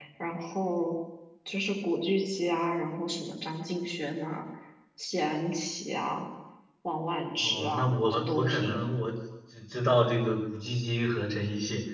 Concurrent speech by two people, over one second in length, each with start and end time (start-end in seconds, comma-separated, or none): 7.4-8.8